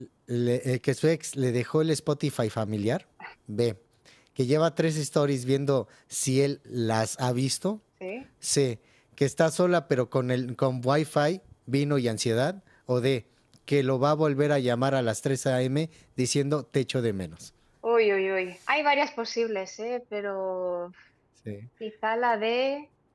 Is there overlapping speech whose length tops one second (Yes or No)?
No